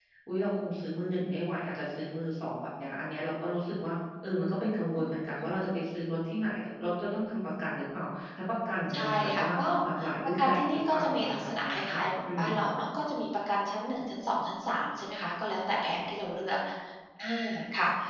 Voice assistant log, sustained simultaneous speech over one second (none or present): present